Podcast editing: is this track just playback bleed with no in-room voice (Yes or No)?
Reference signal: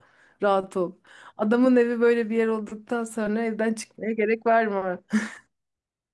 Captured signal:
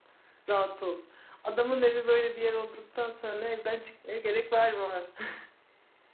Yes